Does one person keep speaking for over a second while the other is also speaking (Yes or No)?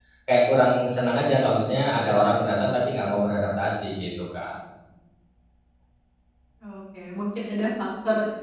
No